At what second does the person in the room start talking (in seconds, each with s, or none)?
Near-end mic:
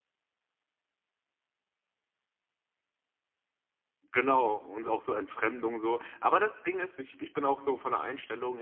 4.1 s